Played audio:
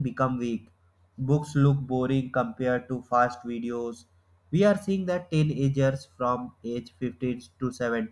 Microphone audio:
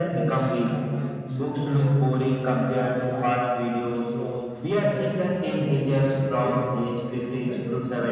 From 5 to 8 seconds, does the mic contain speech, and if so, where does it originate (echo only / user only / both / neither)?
both